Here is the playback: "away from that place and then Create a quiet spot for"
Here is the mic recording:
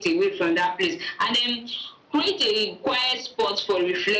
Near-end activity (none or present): none